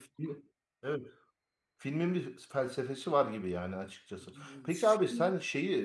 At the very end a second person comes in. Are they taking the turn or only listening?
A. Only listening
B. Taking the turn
A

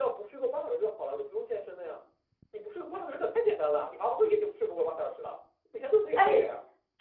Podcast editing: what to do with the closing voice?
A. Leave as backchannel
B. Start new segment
B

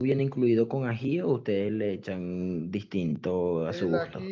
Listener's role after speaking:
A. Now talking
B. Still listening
A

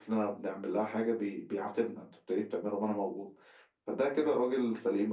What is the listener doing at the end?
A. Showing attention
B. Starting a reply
A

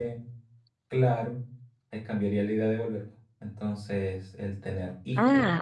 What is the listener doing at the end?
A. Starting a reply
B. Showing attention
A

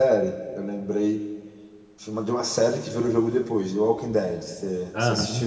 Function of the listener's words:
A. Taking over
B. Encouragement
A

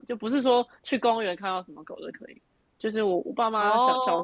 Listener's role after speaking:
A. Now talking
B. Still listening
B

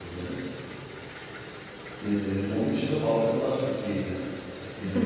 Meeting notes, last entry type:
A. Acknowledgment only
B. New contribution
B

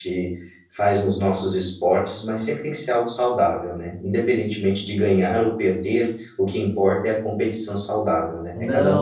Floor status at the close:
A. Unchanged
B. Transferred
B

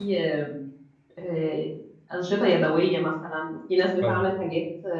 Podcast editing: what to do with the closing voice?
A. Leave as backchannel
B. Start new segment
A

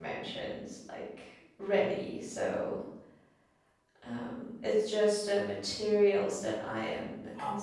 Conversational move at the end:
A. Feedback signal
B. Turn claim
B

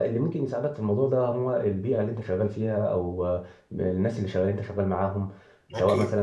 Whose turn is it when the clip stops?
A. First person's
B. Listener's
A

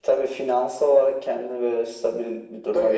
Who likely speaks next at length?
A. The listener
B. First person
A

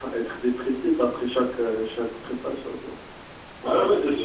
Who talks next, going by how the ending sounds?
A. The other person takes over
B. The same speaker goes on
A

